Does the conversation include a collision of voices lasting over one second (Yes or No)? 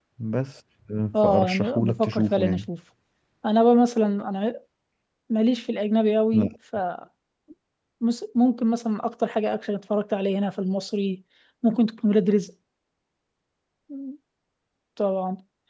Yes